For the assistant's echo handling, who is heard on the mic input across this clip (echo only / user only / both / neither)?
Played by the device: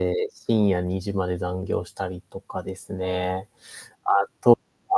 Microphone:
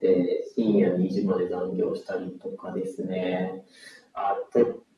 echo only